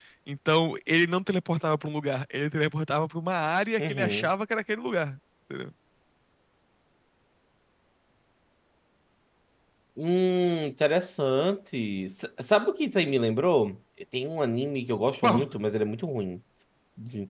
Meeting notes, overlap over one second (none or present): none